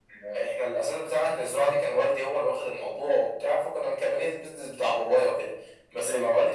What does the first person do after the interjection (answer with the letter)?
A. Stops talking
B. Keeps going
B